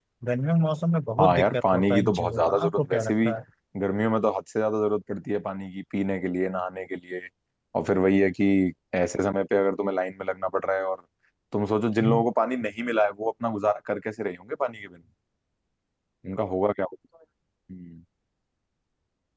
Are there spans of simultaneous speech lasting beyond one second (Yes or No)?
Yes